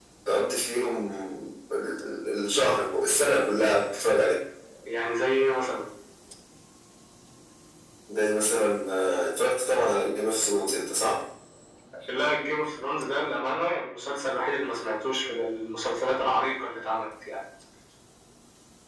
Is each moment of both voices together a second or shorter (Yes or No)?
Yes